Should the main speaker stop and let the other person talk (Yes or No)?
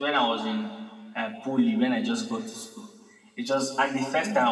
No